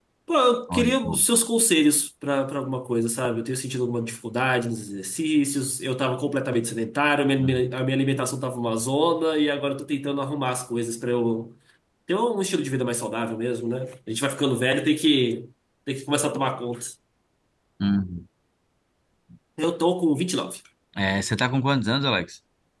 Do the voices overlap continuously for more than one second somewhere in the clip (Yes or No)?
No